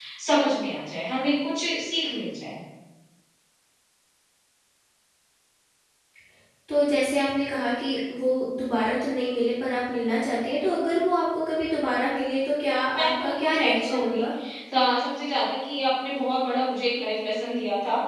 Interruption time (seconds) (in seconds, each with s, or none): 12.9 s